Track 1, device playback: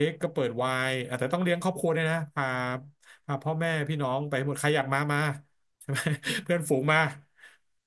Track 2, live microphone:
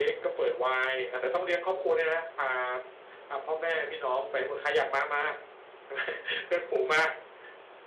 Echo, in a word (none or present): present